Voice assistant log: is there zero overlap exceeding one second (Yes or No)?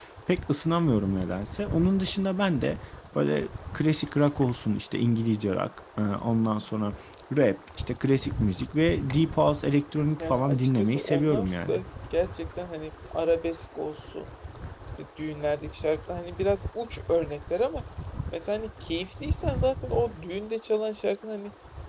No